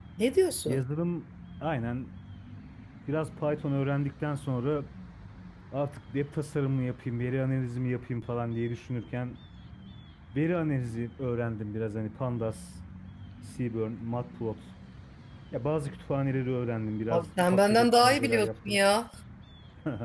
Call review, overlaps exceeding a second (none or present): present